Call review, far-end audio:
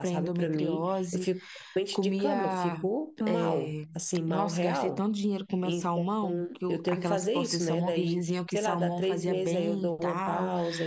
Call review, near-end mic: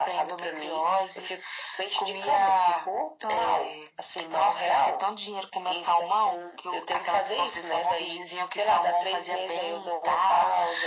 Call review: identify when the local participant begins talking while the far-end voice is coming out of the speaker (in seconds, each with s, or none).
none